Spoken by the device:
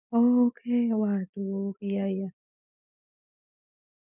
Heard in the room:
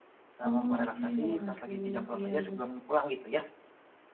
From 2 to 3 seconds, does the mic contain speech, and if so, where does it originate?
both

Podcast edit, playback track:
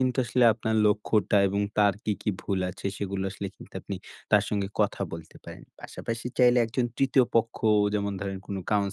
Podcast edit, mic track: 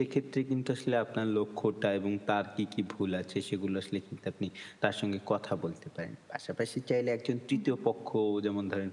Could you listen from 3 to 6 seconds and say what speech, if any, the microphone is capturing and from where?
echo only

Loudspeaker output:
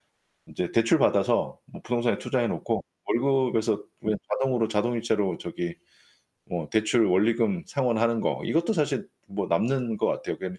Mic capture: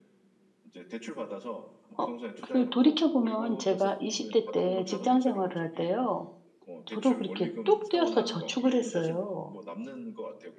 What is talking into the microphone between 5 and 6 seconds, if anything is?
both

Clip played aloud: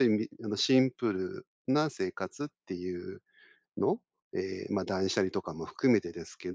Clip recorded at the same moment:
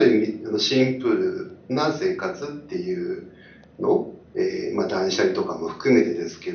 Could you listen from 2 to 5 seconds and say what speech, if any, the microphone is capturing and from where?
echo only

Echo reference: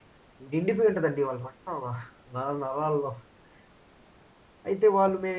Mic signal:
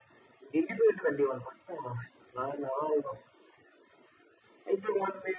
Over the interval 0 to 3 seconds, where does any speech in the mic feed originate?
echo only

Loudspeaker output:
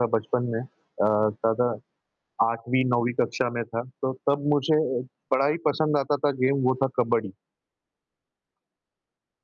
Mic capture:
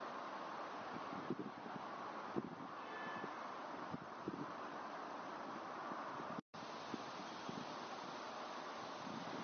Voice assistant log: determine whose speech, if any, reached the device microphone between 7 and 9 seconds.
neither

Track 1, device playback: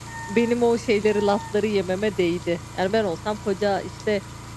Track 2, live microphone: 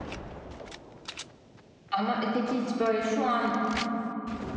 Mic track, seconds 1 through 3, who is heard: user only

